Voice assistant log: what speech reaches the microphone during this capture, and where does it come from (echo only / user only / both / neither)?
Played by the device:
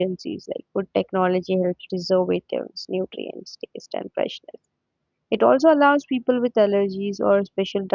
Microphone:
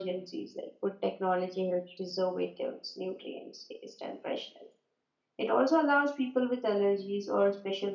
echo only